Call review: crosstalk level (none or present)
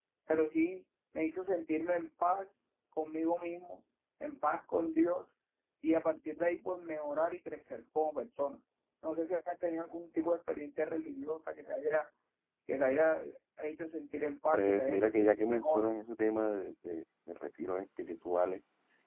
present